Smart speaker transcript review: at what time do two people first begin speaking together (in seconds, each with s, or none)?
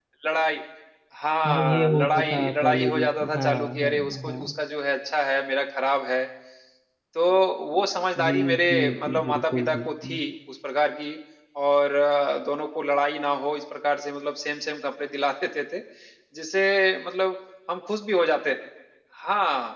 1.4 s